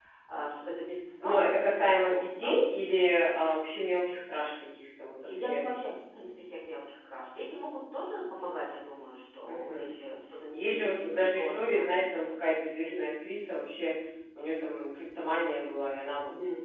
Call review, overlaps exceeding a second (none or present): present